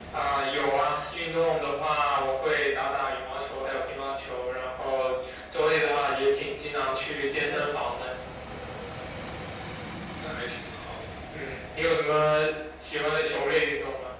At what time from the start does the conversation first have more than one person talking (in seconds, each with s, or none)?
none